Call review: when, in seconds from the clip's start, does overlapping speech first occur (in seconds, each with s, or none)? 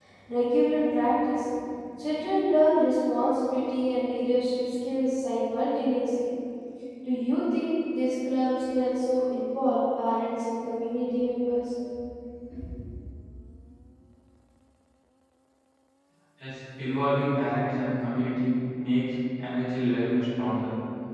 none